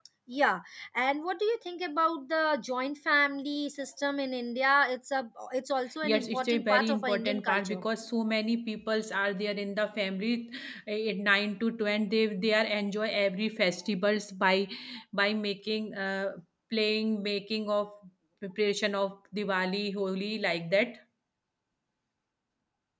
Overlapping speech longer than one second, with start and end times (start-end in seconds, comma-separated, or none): 6.0-7.8